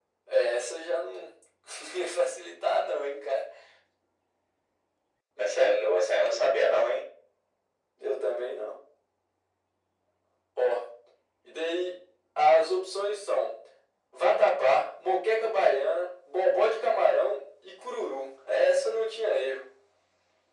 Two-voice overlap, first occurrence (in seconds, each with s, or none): 5.4 s